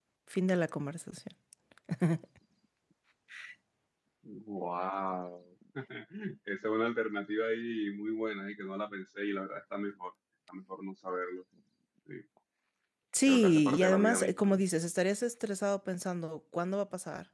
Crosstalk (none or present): present